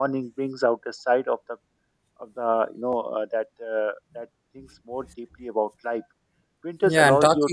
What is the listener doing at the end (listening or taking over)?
taking over